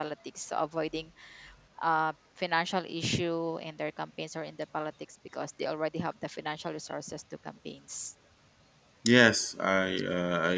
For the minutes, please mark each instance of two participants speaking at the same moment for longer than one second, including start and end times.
none

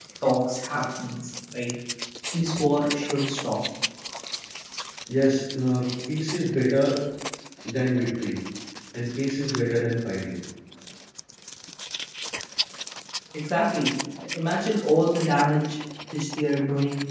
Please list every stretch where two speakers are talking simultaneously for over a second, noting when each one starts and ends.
none

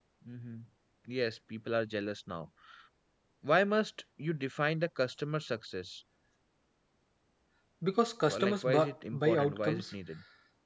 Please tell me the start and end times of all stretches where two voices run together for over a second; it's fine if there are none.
8.3-9.9

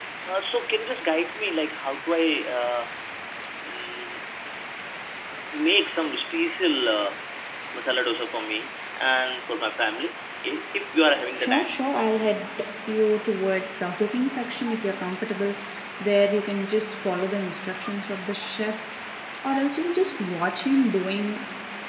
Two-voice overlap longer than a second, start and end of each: none

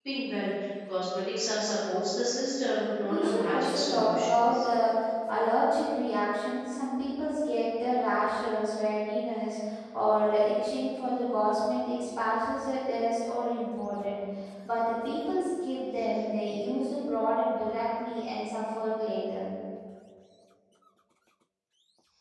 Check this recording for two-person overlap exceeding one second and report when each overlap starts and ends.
3.0-4.7

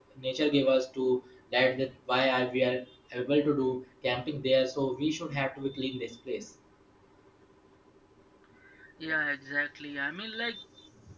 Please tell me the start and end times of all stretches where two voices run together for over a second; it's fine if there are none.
none

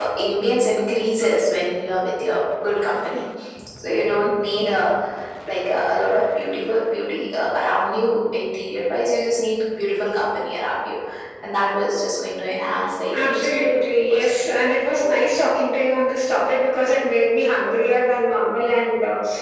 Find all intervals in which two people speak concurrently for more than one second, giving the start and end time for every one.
13.1-14.5

